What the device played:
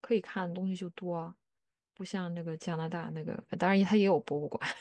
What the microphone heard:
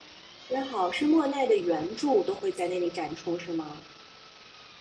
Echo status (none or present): none